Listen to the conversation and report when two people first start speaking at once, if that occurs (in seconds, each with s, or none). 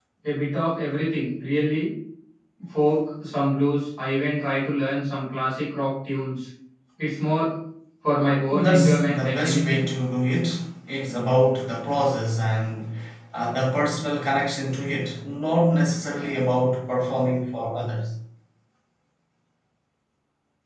8.5 s